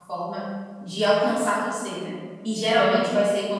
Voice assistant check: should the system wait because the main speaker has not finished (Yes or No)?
Yes